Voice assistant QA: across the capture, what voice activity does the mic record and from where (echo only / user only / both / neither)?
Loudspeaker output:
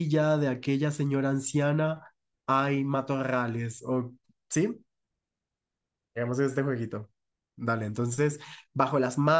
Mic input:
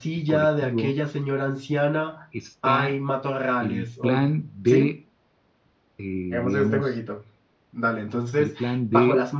both